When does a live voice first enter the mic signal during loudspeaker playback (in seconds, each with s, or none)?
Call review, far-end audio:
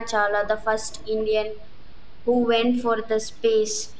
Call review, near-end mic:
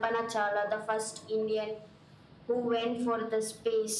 none